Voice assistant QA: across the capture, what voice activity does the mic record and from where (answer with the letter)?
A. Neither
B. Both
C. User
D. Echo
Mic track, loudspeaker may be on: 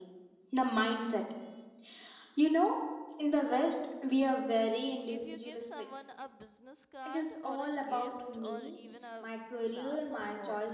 B